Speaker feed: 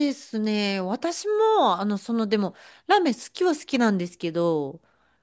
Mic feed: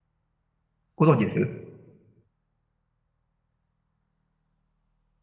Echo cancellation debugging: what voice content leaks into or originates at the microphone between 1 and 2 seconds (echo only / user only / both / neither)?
user only